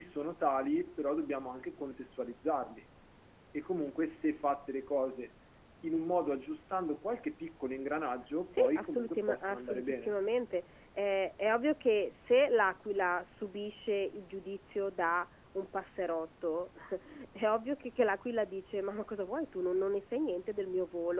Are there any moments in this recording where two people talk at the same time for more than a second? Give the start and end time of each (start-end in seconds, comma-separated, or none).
8.5-10.2